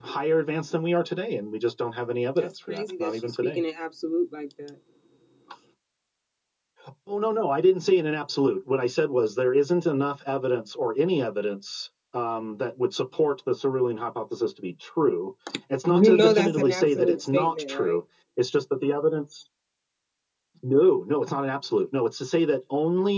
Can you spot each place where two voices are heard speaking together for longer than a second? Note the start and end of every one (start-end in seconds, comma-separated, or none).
2.4-3.6, 15.9-18.0